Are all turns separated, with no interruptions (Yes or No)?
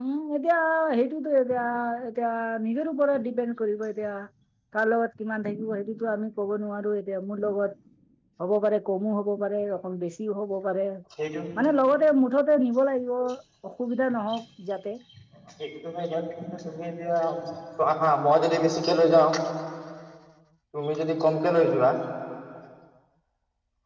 Yes